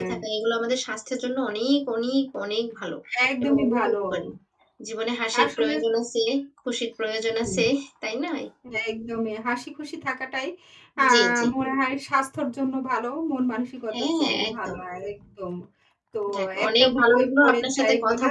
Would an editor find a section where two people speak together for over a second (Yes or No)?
Yes